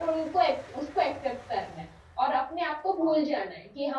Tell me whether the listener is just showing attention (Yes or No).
Yes